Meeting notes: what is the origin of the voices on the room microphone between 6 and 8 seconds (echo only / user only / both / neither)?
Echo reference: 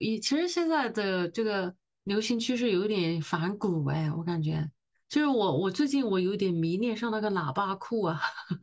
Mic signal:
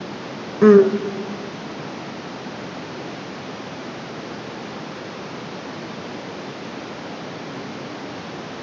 neither